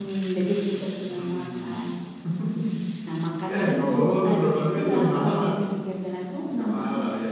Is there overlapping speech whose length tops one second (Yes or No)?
Yes